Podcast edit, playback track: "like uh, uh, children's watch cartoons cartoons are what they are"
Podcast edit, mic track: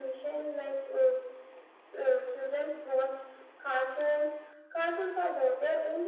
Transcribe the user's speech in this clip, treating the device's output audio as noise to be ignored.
none

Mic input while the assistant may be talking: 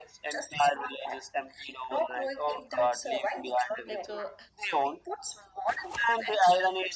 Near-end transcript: Like uh,

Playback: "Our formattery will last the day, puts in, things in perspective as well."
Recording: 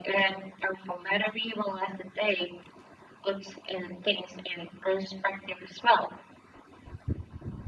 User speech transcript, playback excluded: none

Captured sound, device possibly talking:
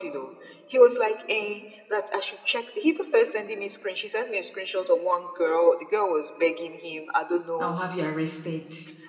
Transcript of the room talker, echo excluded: I'll have you arrested.

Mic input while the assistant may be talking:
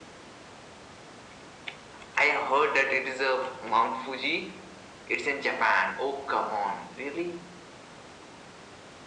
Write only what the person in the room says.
none

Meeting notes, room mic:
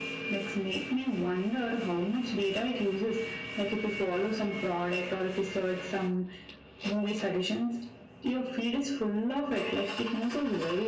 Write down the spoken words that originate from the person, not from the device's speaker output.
none

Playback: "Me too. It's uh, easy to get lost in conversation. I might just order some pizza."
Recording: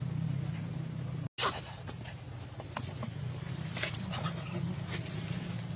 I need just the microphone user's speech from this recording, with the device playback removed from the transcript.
none

